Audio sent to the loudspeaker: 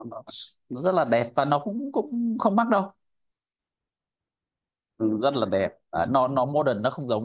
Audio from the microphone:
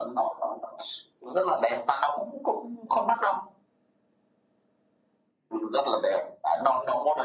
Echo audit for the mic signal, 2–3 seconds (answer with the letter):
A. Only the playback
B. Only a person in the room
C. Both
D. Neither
A